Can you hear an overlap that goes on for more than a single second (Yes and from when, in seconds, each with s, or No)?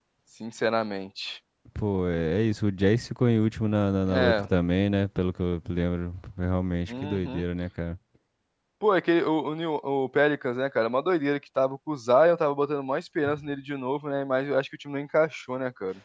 No